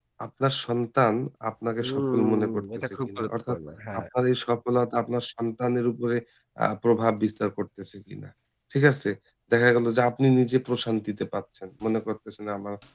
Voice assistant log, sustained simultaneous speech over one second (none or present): present